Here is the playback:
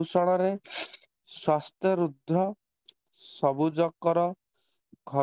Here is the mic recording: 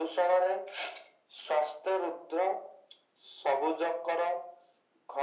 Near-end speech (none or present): none